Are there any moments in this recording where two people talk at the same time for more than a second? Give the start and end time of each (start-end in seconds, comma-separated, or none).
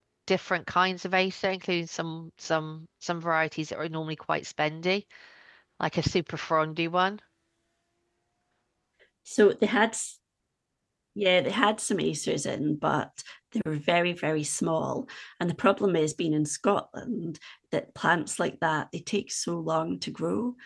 none